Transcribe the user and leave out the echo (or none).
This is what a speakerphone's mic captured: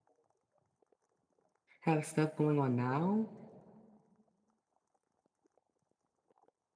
have stuff going on now,